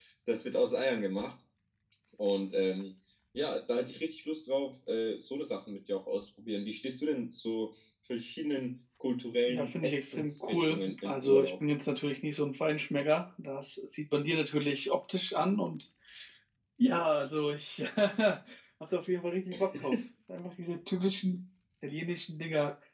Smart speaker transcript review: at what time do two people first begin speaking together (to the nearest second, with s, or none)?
9 s